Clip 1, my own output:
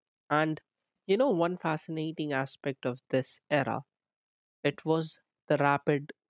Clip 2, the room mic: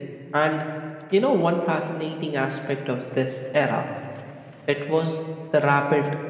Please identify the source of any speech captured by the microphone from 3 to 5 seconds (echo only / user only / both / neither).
echo only